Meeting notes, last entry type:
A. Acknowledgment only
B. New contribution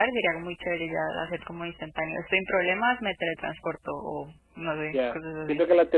B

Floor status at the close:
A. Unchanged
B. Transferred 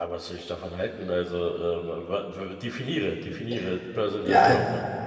B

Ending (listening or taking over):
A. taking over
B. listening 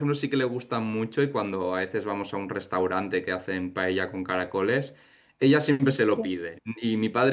B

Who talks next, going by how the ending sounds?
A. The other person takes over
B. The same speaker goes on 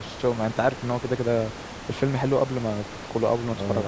A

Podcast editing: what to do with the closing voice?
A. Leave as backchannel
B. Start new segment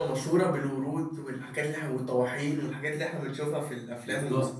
B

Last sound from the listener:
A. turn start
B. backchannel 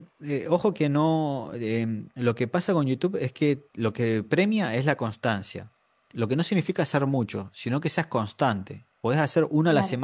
B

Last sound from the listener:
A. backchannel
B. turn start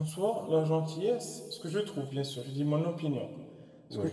A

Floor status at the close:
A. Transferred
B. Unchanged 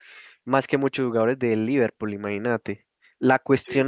B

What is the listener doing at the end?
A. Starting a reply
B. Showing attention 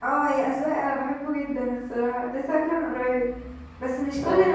B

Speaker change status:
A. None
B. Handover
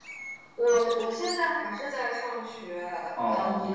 B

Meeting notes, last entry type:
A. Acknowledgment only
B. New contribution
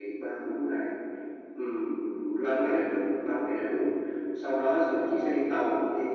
A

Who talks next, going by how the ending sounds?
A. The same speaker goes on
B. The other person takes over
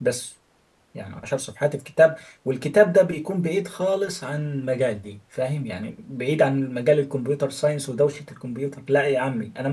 B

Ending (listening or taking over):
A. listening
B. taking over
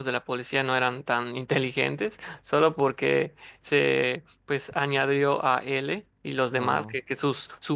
A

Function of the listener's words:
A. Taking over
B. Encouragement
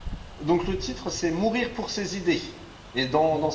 B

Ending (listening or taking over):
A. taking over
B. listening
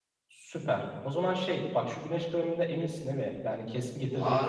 A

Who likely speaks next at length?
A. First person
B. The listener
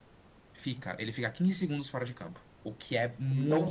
B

